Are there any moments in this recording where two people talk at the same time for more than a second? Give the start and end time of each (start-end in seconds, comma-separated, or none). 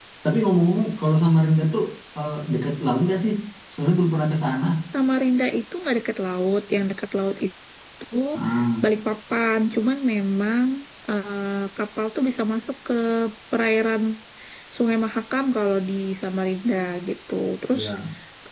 none